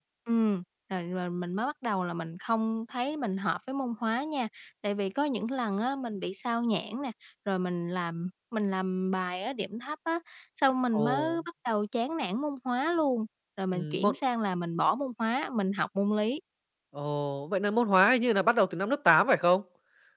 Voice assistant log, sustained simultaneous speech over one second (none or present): none